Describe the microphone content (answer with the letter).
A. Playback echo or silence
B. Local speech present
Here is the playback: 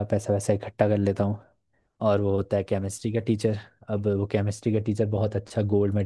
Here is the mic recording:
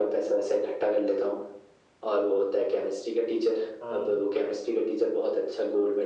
B